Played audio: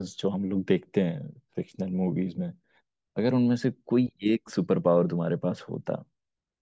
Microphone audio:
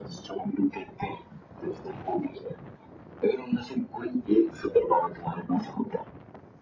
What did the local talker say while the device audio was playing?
none

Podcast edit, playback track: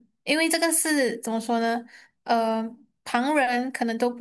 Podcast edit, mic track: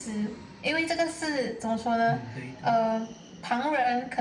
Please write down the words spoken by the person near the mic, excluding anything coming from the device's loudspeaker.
嗯对对，

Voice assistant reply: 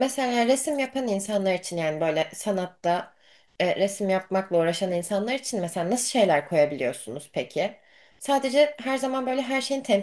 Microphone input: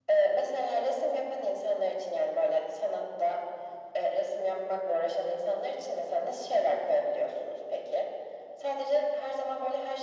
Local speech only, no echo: none

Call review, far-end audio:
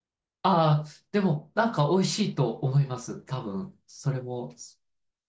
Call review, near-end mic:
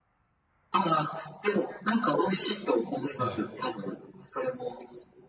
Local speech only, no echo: はい。

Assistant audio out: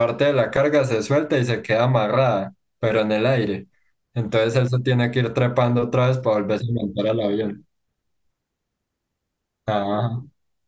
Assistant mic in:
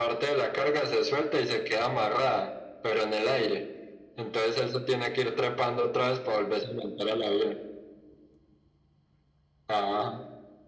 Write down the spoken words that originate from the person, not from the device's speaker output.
none

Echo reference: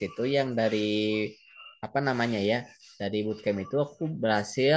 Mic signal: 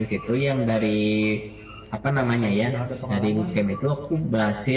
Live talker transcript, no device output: eh, kalau sudah ada pengalaman

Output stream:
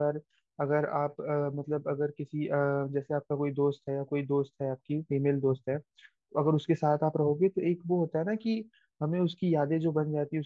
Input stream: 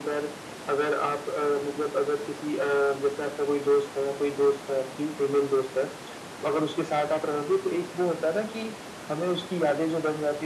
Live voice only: none

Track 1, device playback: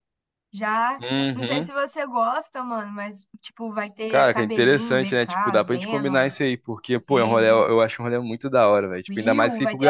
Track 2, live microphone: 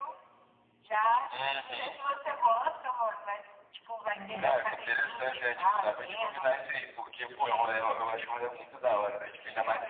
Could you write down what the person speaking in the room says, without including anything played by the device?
É,

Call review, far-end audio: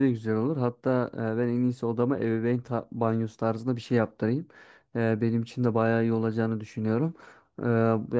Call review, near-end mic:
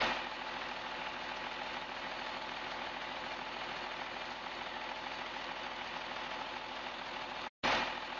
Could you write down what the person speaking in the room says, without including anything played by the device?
none

